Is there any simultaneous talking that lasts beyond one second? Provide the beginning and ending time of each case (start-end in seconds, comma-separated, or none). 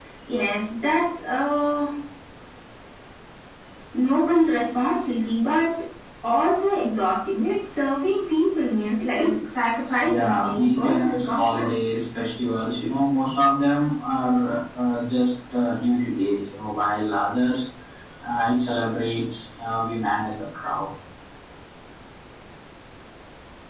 10.0-12.0